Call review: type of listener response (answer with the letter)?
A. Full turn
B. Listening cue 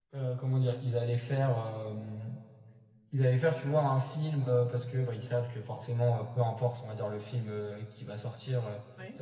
B